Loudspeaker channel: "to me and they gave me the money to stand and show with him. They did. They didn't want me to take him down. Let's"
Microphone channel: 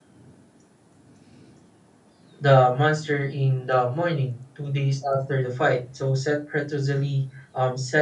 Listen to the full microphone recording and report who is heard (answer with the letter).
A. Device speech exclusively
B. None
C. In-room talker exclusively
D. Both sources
C